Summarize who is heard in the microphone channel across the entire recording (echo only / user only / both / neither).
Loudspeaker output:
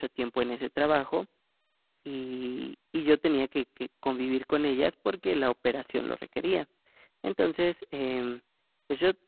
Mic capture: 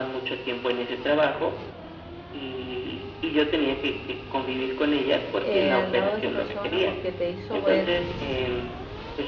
both